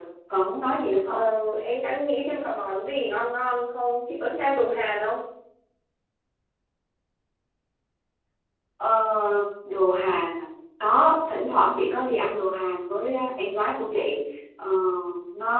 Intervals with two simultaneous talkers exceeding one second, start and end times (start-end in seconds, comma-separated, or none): none